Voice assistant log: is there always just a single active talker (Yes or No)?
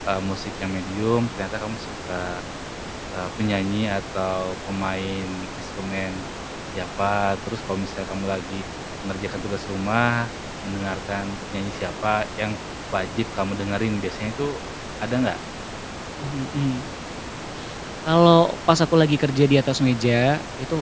Yes